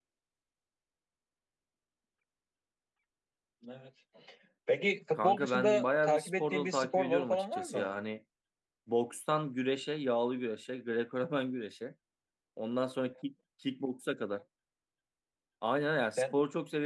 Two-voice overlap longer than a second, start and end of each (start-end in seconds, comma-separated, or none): 5.2-7.9